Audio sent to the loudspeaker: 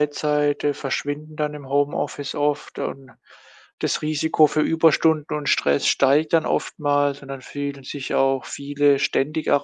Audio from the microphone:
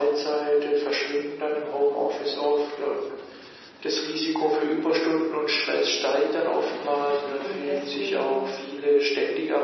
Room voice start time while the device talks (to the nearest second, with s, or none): 7 s